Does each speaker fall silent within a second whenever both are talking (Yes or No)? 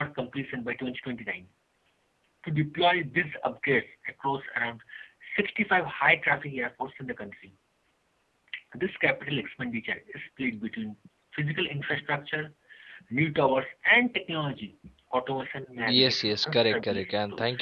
No